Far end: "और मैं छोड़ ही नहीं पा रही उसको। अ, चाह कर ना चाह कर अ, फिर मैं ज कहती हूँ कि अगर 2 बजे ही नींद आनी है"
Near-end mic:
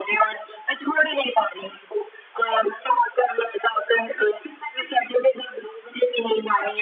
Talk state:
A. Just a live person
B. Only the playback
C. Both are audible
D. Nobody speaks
B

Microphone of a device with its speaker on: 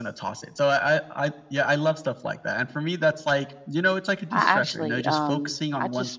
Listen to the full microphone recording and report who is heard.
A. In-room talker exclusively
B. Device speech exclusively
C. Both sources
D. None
C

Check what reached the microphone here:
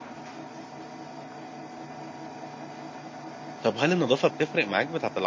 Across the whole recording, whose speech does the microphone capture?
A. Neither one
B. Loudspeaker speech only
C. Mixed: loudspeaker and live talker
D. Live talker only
D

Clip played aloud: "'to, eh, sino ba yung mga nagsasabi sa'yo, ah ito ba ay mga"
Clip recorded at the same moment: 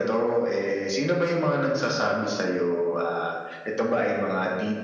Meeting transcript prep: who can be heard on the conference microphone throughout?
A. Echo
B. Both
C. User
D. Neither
A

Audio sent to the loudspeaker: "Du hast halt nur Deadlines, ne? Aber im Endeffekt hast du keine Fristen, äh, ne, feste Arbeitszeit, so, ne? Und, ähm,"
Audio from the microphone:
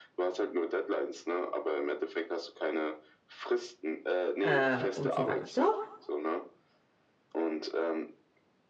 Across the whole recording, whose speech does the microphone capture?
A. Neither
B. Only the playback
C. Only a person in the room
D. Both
D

